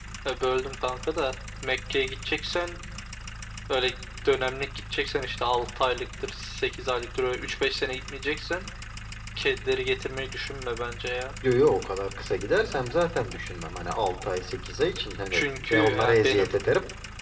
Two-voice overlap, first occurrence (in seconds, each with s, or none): 15.3 s